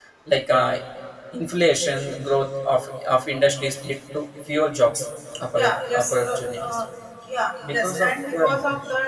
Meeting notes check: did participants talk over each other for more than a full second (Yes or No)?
Yes